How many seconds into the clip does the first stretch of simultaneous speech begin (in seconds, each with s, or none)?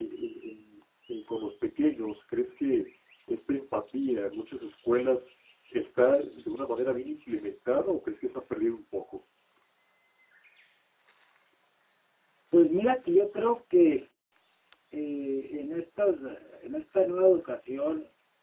none